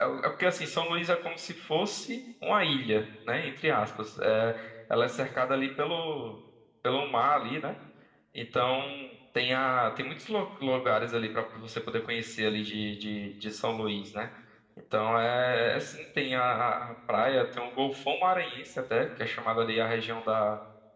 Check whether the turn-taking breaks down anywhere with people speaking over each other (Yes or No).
No